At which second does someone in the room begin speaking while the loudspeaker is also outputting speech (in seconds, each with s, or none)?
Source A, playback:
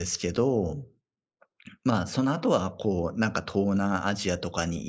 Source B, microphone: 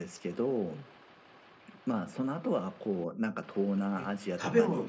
3.9 s